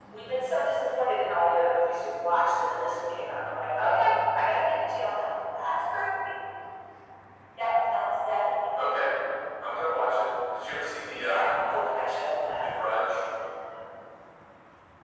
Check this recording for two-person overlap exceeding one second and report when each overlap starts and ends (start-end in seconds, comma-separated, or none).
none